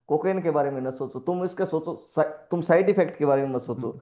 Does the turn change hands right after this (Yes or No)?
Yes